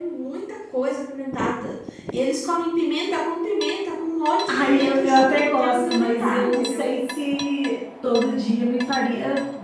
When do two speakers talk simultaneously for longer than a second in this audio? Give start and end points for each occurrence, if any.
4.5-6.9

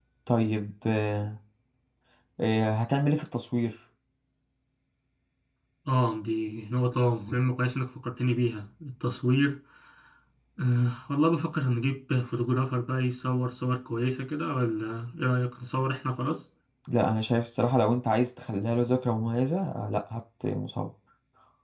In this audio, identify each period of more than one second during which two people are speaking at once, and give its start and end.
none

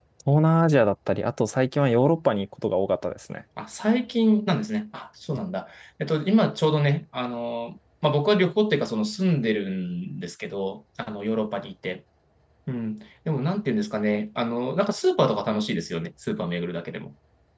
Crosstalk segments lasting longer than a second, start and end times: none

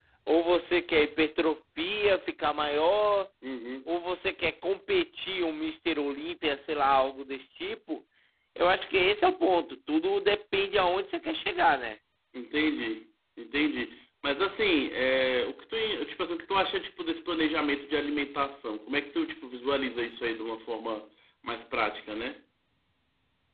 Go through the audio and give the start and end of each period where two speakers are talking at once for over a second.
none

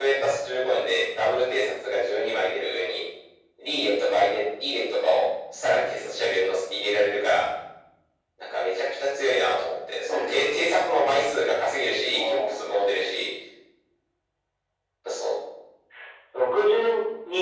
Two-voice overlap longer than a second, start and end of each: none

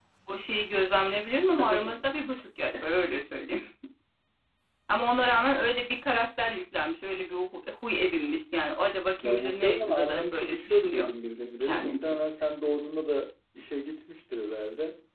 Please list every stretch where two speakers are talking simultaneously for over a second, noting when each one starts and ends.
9.2-11.1

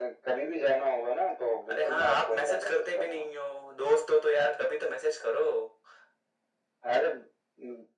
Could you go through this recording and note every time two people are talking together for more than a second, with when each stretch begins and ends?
1.7-3.3

